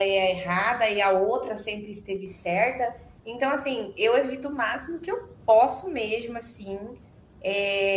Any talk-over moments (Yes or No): No